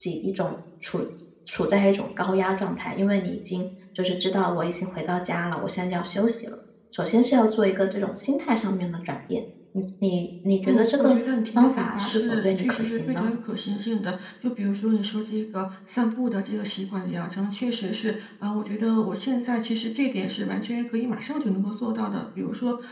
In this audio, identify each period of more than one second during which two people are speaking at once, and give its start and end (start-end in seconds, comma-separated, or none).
11.6-13.3